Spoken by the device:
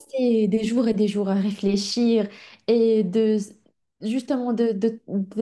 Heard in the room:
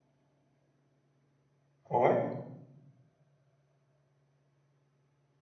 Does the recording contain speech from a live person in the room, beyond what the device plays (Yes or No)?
Yes